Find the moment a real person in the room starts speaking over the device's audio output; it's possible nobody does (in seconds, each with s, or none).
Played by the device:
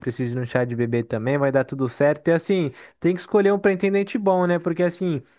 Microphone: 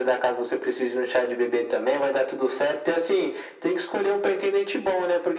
none